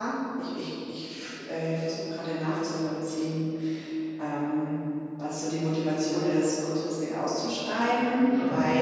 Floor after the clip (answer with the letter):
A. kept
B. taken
A